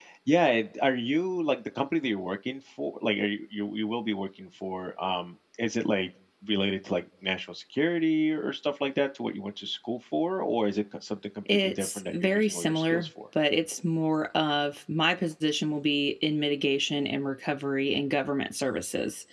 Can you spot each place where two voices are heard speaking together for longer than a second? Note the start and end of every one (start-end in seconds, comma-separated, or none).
11.5-13.1